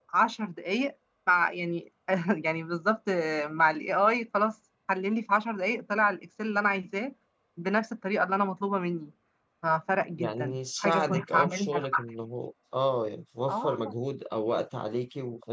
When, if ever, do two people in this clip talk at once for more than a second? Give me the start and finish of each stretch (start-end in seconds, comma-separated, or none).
10.2-12.0